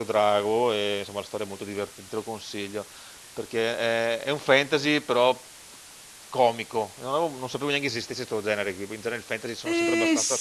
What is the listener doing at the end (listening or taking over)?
taking over